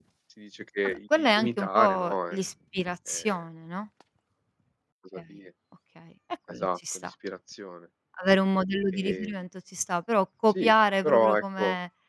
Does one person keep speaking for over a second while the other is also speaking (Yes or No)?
Yes